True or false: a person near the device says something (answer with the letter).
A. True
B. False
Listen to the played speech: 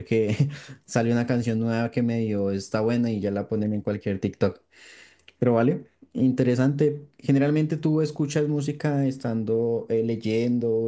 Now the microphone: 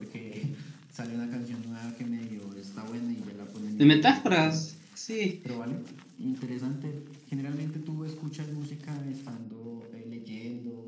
A